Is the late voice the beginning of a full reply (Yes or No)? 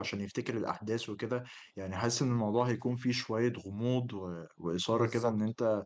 No